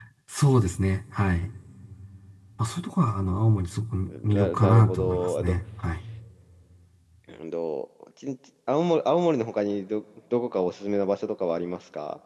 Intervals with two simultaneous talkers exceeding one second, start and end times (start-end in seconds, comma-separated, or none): 4.1-5.5